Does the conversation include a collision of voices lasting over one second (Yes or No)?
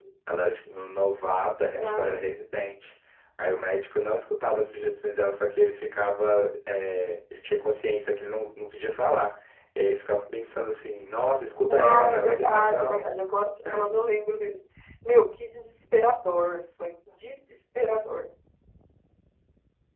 Yes